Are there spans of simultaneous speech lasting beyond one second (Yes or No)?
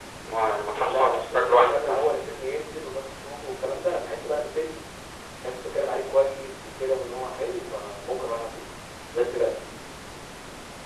Yes